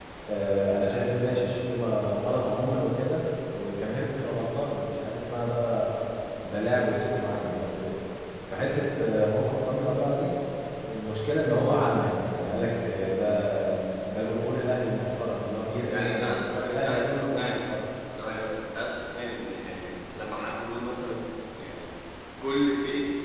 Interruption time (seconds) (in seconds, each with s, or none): 15.8 s